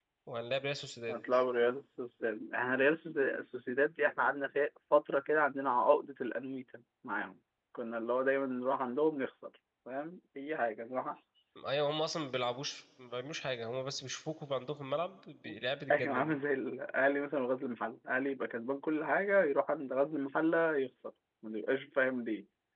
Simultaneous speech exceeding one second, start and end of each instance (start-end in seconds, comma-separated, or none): none